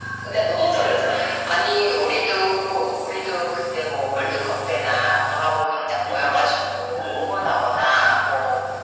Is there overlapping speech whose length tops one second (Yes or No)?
No